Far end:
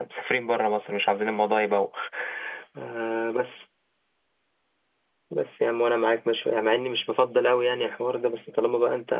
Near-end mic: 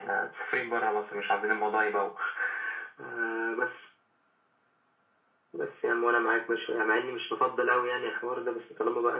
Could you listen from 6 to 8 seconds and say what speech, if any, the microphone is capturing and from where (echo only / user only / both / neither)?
echo only